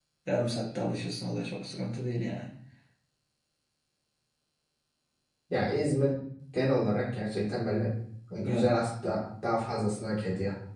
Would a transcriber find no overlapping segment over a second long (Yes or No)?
Yes